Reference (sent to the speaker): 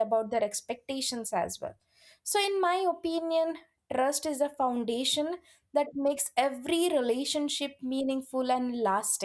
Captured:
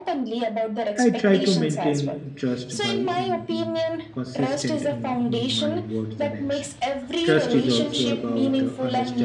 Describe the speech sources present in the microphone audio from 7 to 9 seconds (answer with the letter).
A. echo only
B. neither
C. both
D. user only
C